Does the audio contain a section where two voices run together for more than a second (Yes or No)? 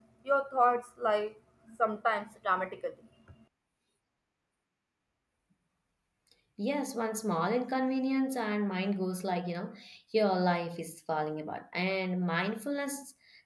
No